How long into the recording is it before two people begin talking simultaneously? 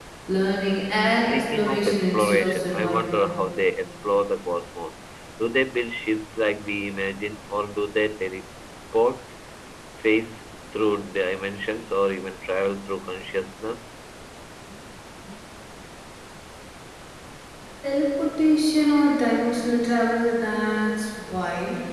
1 s

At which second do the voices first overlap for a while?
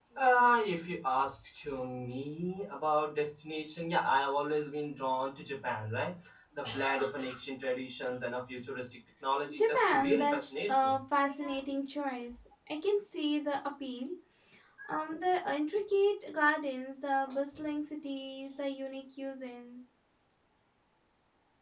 10 s

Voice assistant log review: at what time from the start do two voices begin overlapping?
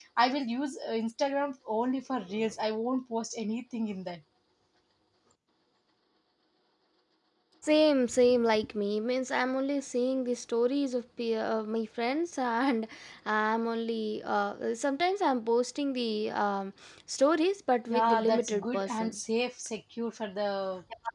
18 s

